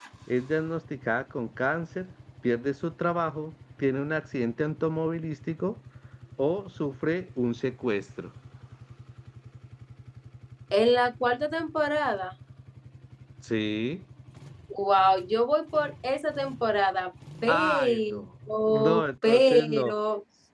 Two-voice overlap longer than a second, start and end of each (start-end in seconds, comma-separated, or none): 17.5-19.9